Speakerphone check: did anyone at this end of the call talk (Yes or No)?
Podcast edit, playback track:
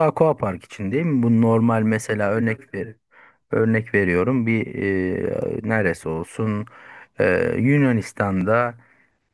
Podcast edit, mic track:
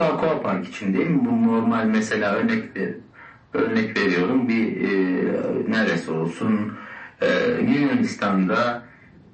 No